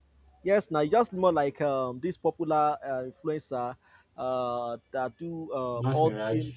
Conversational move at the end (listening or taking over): listening